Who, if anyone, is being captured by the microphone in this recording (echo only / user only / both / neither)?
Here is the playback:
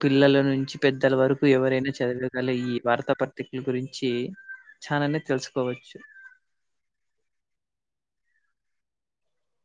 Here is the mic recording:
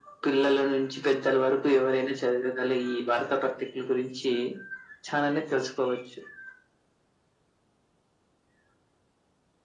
echo only